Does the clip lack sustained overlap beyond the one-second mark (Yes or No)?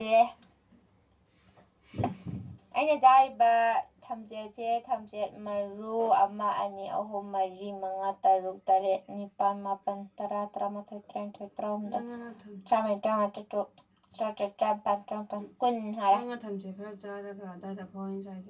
Yes